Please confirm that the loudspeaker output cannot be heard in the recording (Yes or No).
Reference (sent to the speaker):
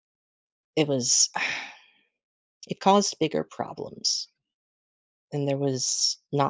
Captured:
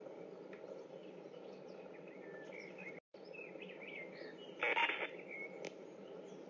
Yes